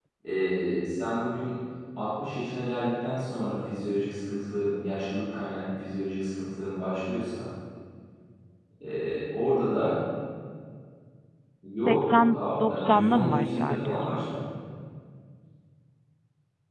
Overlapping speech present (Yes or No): Yes